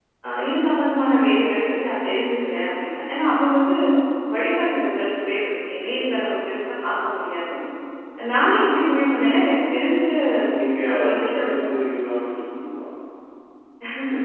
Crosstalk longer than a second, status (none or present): none